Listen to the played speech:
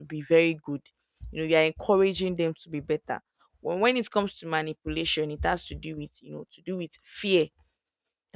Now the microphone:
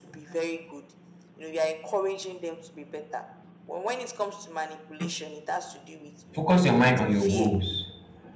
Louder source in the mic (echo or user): user